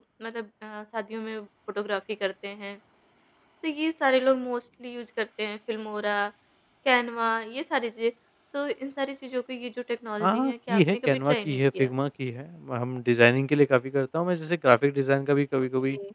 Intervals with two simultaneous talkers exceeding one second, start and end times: 10.2-11.9

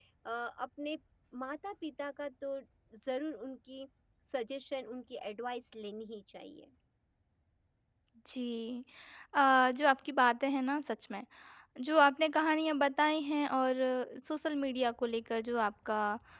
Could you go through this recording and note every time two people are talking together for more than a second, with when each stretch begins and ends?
none

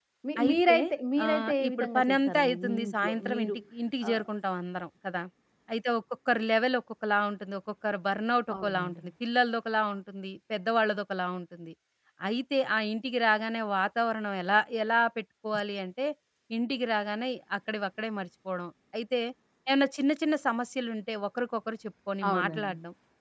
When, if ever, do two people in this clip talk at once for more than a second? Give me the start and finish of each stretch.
1.2-3.6

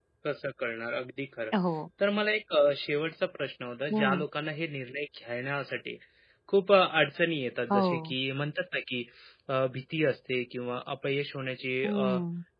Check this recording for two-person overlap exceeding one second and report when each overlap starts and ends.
none

